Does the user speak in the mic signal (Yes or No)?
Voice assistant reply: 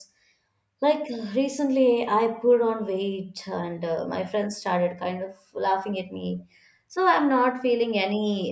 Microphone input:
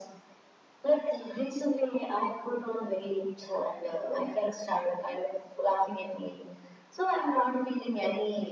No